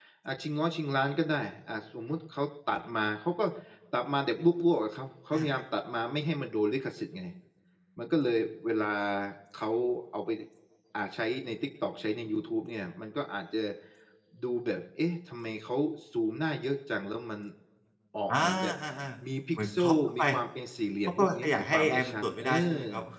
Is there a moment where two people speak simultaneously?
Yes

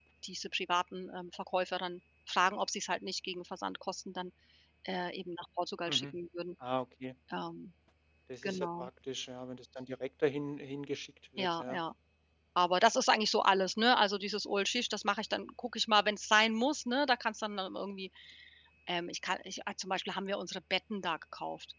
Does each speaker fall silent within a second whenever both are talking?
Yes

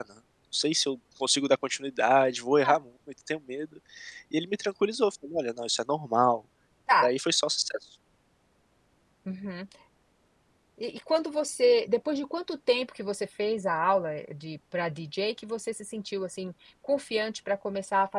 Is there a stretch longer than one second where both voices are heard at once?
No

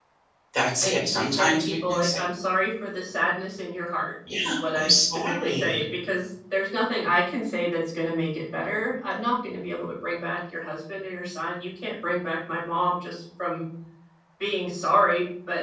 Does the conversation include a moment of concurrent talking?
Yes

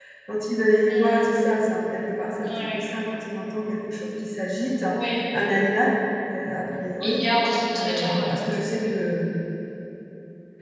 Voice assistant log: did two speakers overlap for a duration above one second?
No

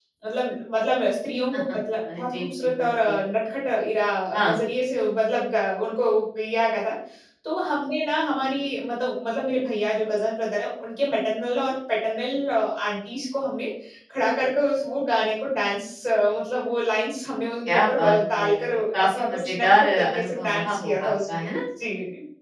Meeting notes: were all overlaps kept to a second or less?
No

